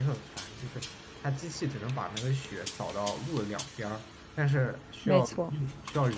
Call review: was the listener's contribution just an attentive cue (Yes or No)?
Yes